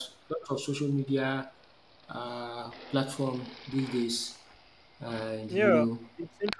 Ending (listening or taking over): taking over